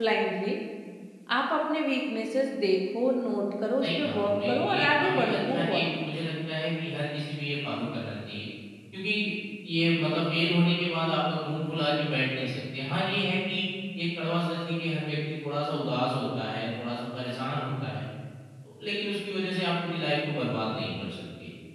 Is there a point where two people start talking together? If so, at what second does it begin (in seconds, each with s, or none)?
3.8 s